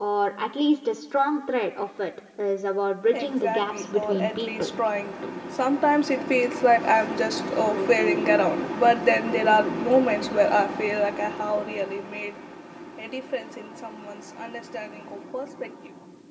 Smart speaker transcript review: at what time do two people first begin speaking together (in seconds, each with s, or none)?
3.1 s